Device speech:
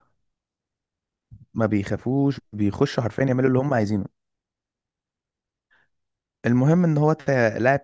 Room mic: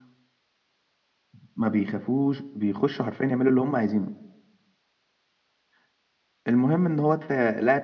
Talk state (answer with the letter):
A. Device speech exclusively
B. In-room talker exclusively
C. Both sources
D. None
A